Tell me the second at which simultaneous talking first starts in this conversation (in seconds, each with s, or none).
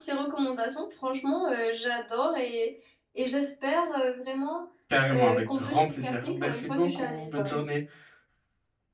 5.1 s